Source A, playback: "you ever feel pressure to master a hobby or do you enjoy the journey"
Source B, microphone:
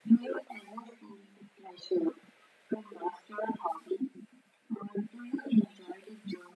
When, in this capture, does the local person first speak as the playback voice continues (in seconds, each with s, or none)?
none